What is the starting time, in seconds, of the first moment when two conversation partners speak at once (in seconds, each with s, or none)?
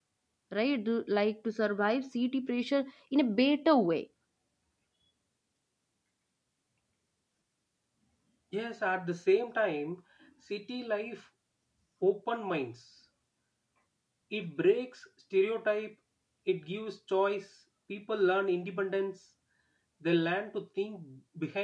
none